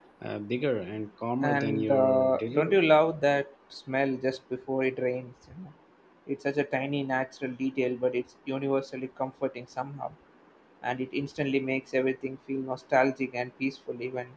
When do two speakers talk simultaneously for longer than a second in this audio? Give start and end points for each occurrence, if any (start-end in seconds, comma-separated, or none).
1.4-3.0